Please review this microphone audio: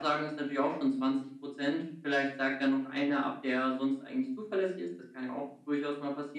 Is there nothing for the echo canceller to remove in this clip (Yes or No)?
No